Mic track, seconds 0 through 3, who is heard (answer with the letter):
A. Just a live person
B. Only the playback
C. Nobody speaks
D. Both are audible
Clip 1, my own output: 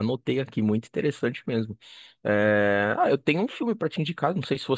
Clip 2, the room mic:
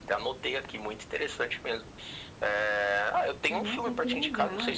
B